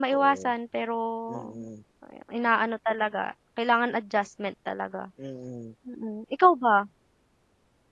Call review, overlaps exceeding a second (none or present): none